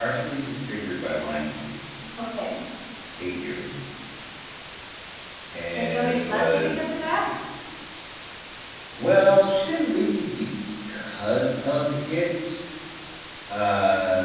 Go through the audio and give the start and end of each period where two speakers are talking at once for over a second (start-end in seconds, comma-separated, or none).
5.8-7.1